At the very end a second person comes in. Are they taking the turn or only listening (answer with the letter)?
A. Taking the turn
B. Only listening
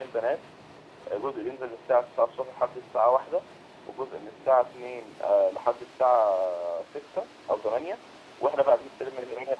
B